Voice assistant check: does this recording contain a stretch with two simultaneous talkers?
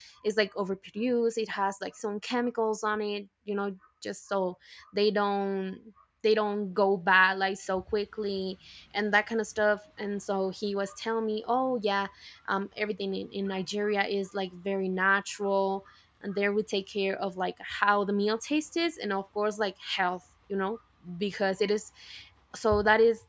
No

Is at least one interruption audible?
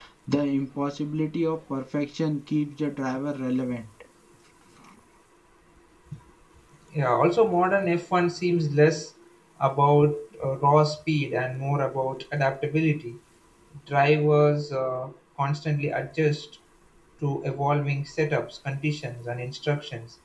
No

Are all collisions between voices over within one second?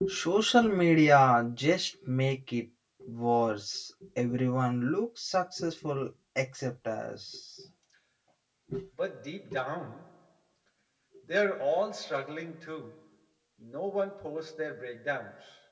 Yes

